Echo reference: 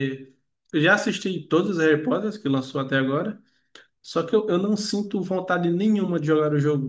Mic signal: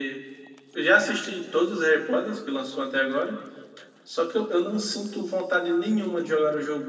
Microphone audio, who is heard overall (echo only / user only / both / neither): echo only